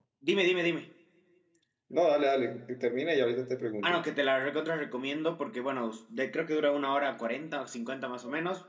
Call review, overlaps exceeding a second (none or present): none